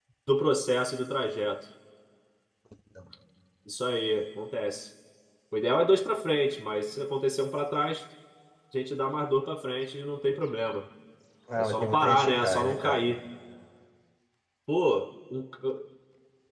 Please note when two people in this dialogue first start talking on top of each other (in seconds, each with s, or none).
11.6 s